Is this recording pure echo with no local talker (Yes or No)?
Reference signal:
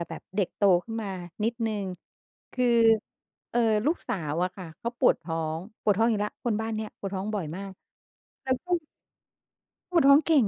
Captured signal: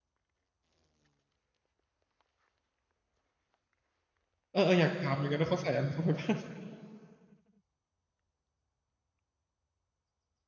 No